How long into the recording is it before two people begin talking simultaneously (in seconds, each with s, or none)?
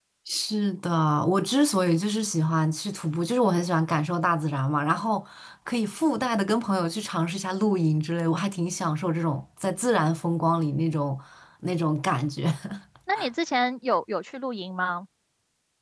none